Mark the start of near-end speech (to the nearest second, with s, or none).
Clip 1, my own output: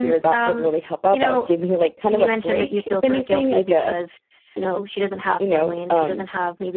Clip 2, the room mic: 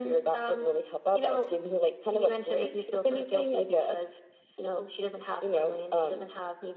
none